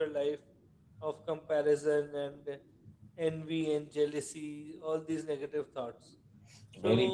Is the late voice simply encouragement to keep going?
No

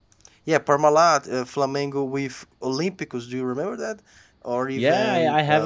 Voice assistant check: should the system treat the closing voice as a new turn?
Yes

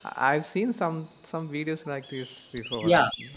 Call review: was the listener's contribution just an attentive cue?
No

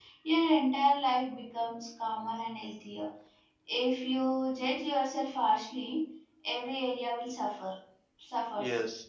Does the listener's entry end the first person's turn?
Yes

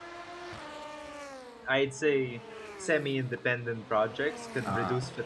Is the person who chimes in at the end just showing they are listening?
Yes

